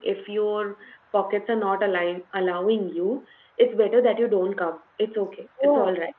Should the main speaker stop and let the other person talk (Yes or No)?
No